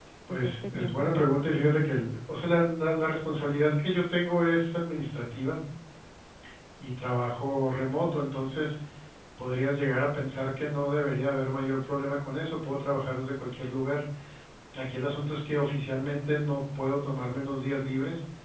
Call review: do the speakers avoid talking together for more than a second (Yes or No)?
No